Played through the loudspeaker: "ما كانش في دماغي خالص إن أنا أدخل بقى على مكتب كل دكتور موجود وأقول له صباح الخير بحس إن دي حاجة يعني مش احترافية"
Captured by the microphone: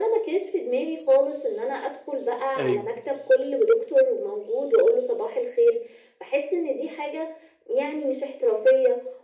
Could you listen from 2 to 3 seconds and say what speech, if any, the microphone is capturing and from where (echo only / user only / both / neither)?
both